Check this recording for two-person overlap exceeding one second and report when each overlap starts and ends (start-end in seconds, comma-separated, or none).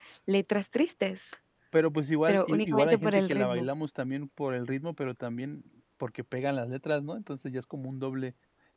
2.3-3.7